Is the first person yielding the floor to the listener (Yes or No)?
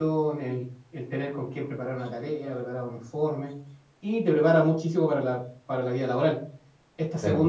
No